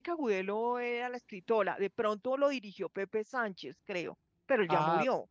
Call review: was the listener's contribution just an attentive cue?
No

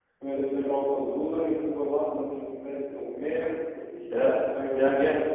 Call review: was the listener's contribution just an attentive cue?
No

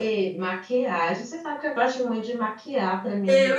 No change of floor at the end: No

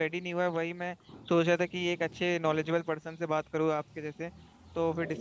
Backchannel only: Yes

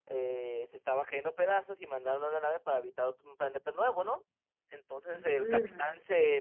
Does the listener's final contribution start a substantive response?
No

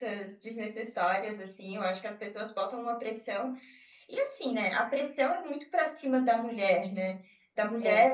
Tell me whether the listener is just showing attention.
Yes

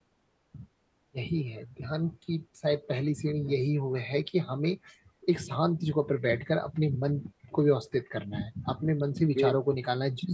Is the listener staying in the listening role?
Yes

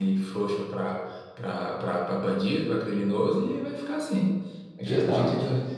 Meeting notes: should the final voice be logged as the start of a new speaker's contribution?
No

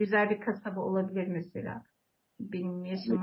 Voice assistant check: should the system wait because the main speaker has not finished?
No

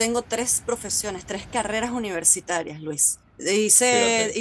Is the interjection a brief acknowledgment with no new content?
Yes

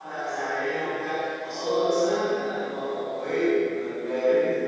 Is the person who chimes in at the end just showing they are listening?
Yes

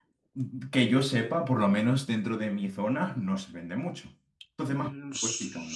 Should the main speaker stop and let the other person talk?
Yes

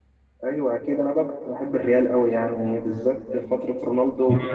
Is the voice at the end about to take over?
Yes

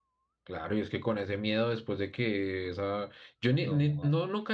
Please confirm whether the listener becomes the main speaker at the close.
No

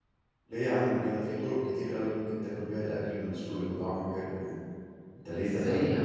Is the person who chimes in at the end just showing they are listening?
No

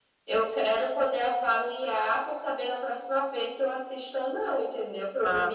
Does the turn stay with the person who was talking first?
Yes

